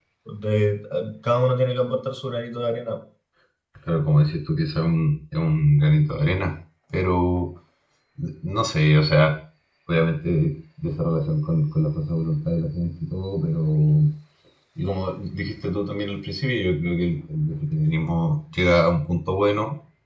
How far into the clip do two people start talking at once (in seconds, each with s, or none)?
none